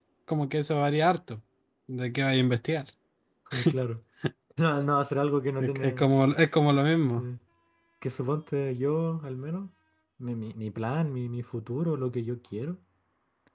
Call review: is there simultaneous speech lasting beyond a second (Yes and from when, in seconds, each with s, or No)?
No